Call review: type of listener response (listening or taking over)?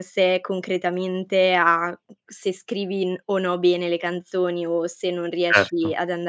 listening